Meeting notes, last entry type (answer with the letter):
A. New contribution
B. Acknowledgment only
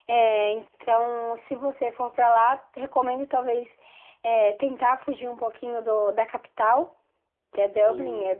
B